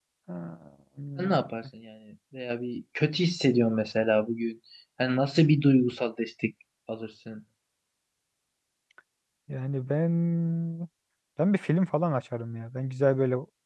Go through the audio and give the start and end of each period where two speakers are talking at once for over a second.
none

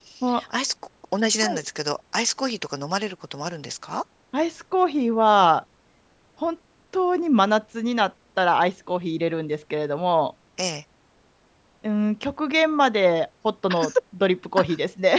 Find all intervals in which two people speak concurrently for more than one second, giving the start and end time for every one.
none

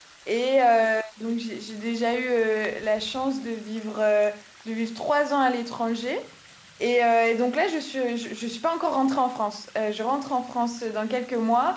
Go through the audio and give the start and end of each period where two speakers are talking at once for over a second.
none

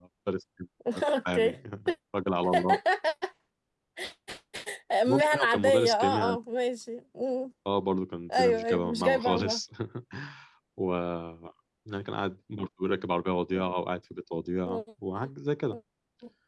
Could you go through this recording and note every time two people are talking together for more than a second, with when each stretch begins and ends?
5.1-6.3, 8.4-9.6

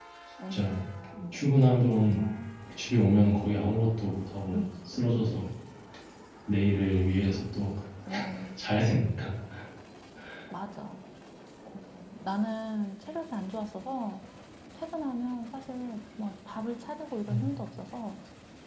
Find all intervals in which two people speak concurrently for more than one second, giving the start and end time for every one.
none

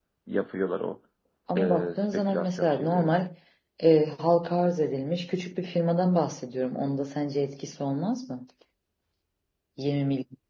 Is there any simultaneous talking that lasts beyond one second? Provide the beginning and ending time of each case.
1.6-3.1

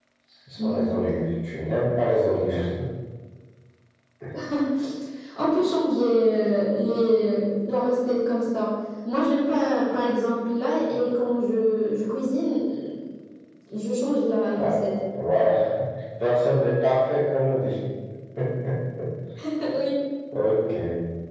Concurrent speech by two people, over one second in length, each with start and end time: none

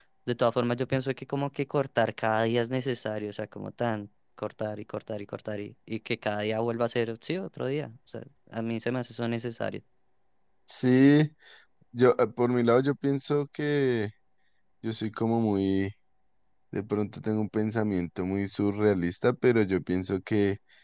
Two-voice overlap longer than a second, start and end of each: none

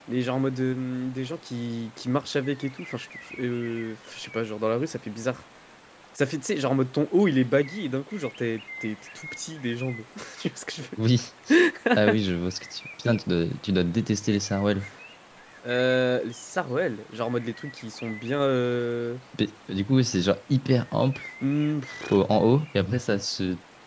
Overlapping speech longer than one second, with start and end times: none

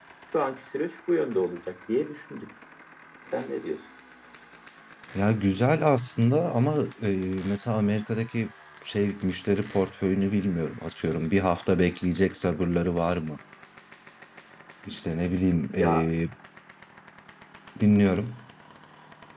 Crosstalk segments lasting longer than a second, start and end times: none

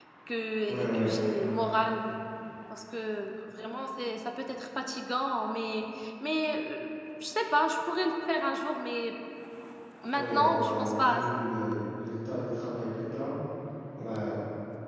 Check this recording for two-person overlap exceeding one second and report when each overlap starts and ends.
10.1-11.4

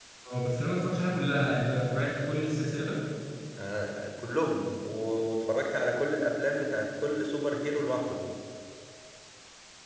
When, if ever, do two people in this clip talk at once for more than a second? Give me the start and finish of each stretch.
none

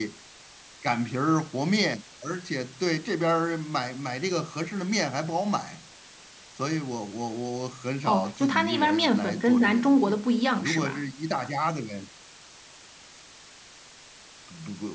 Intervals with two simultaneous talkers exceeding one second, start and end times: 8.0-10.2

